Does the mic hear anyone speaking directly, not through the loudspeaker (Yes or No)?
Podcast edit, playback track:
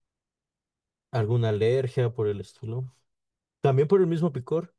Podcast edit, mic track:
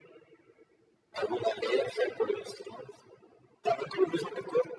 No